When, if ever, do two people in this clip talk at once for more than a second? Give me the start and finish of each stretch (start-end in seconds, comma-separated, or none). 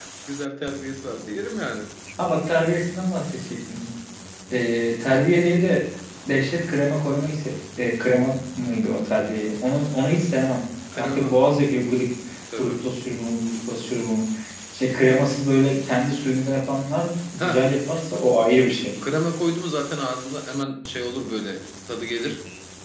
none